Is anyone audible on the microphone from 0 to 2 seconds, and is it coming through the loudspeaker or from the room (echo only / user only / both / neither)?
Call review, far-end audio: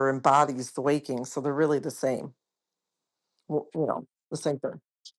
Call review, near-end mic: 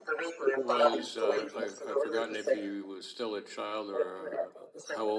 both